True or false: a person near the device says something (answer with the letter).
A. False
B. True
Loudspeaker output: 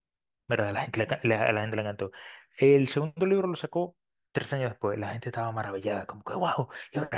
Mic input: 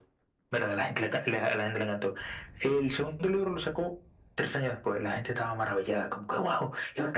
A